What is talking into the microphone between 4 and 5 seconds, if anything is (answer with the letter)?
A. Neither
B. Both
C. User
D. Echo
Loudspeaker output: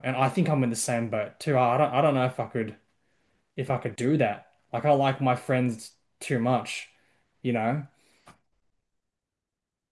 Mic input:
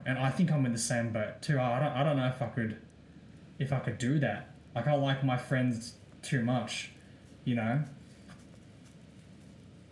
D